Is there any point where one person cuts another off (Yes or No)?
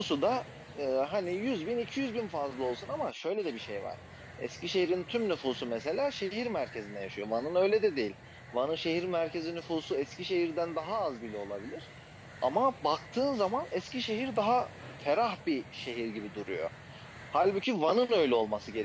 No